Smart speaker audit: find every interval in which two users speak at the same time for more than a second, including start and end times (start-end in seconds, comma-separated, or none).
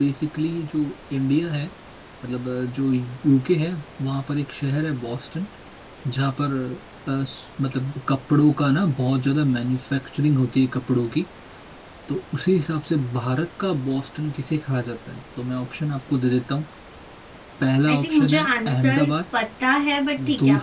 17.9-19.1